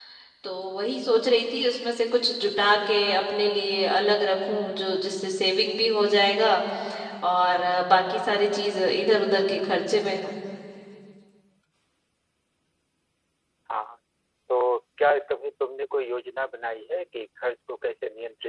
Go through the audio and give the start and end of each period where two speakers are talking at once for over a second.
none

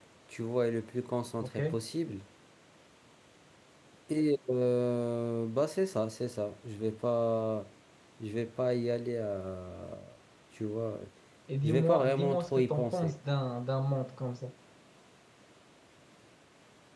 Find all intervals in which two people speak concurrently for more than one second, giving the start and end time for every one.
11.6-13.2

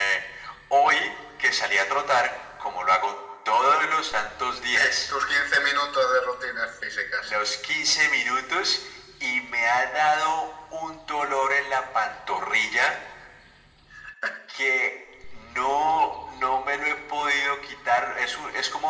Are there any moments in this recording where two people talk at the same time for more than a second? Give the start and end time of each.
none

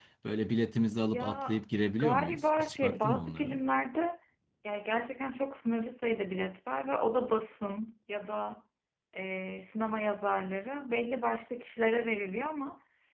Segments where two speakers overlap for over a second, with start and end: 2.0-3.6

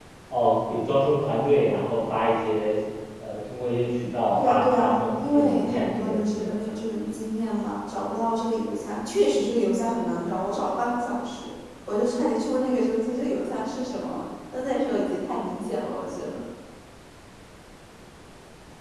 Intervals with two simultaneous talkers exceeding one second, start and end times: 4.4-6.5

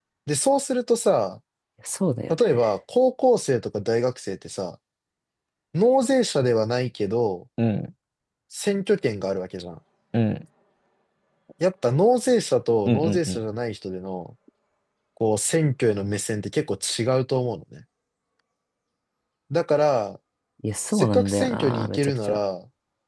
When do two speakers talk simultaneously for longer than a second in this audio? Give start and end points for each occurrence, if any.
20.9-22.4

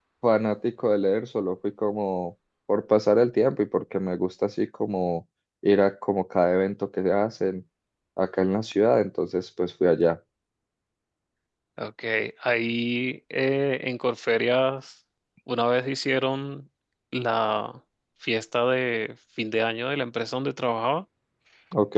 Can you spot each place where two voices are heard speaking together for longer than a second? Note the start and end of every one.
none

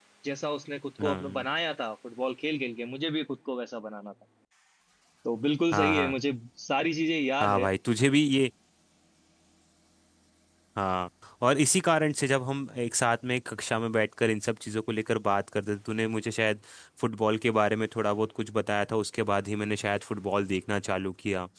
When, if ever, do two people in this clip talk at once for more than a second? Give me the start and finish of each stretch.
none

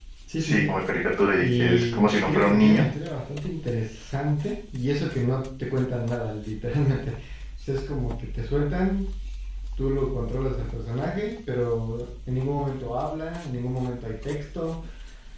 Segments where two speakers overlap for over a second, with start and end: 1.4-2.8

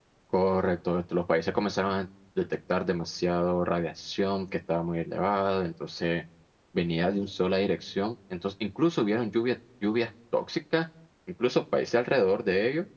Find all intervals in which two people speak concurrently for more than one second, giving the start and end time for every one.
none

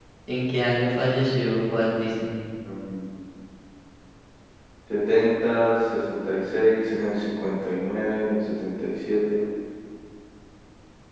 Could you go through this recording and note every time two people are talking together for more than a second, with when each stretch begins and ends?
none

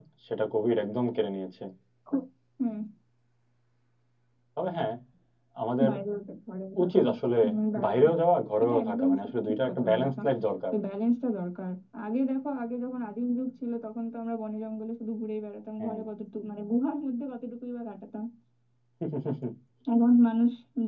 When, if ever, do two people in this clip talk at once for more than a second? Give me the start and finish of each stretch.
8.6-10.1

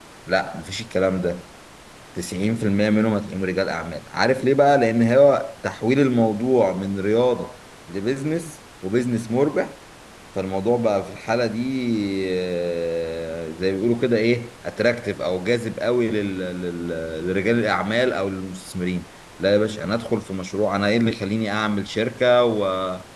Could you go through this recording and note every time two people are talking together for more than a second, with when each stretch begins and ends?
none

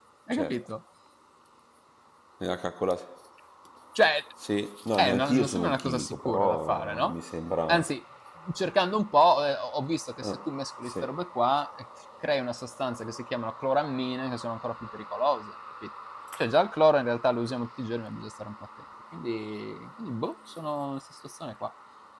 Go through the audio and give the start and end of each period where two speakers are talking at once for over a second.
5.0-7.1

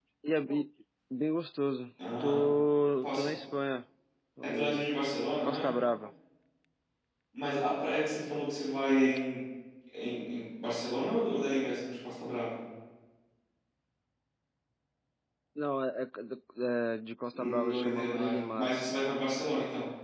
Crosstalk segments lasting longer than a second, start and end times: 17.3-18.7

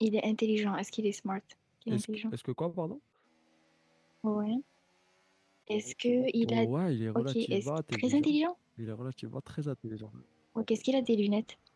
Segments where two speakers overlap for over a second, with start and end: 7.2-8.4

